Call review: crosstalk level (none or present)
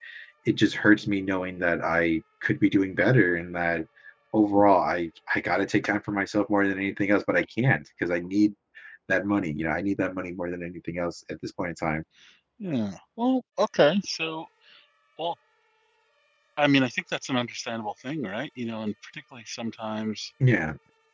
none